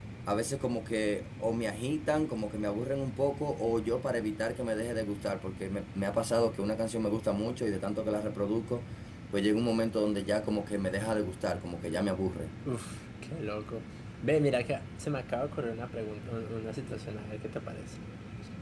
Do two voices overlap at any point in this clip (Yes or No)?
No